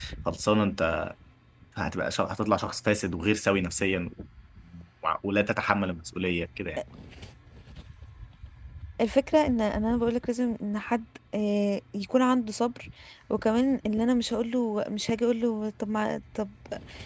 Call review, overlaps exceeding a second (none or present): none